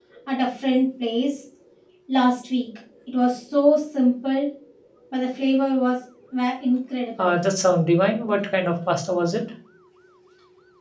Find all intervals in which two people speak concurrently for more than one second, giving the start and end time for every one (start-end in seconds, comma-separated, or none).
none